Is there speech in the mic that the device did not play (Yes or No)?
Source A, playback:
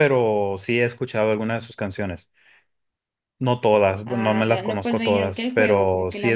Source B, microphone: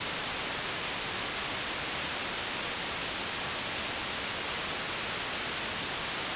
No